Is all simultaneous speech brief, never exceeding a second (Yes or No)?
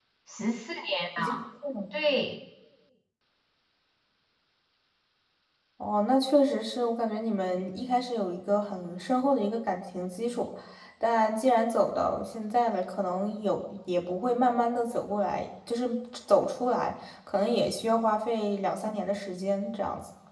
Yes